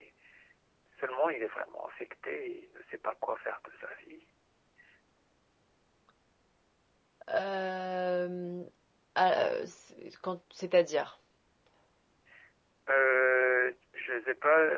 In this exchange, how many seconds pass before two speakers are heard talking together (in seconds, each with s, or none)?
none